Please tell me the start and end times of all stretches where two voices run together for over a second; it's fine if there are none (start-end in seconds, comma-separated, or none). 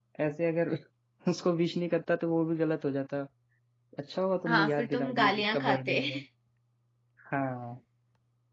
4.5-6.0